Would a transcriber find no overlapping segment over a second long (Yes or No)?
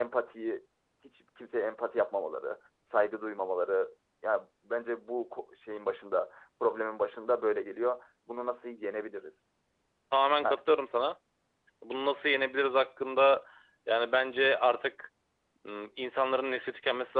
Yes